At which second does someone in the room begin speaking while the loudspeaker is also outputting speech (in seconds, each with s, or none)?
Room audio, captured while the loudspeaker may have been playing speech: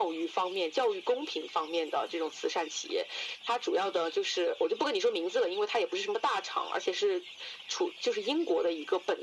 none